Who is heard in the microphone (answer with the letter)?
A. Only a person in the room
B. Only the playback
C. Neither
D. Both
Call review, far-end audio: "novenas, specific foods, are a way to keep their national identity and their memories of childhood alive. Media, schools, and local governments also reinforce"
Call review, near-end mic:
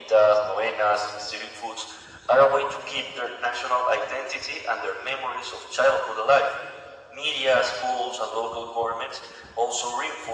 B